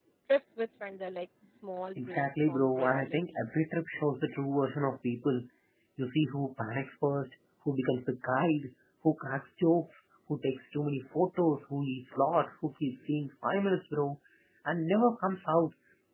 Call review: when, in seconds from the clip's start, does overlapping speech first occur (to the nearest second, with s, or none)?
2 s